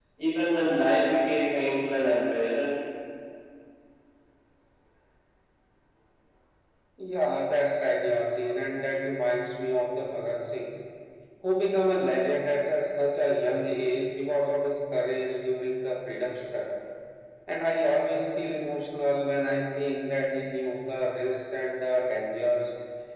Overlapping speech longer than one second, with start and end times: none

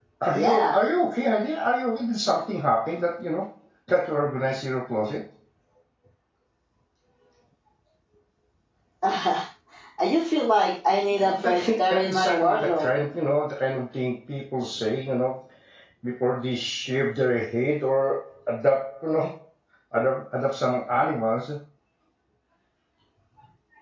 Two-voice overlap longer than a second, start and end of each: 11.1-12.9

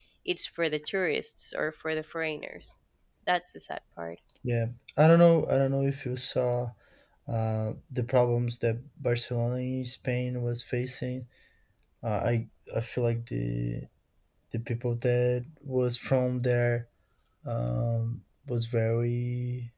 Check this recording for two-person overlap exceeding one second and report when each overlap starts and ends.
none

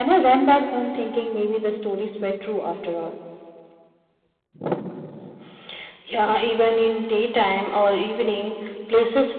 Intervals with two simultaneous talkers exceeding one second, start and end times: none

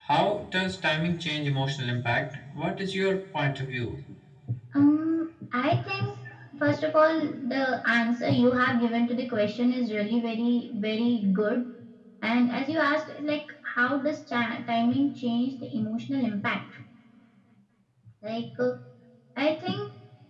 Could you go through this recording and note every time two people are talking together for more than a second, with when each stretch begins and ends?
none

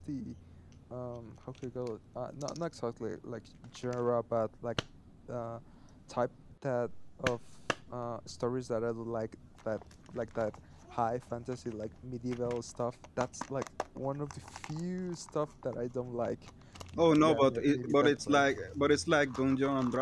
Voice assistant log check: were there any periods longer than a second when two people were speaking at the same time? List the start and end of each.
17.2-18.4

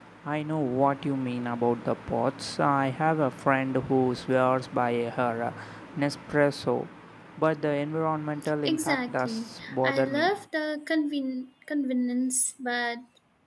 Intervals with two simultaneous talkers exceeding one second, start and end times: 8.6-10.3

